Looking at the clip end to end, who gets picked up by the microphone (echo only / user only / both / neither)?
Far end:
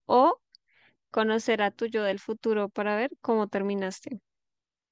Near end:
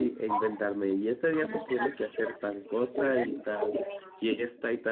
both